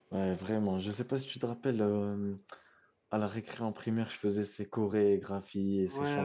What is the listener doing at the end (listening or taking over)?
taking over